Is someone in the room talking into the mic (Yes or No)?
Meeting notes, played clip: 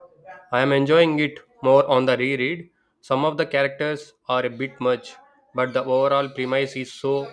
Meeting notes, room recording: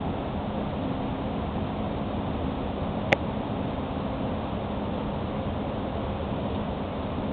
No